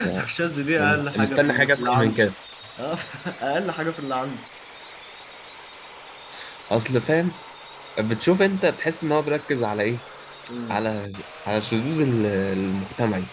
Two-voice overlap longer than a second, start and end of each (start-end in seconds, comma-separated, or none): 0.8-2.2